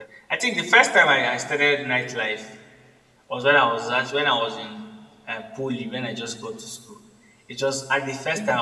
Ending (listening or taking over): listening